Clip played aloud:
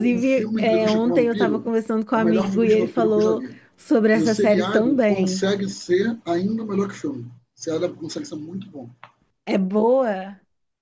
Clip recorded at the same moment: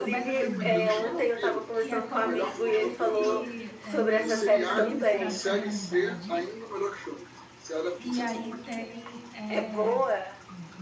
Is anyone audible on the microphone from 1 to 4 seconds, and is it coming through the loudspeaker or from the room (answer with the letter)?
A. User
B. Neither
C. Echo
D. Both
D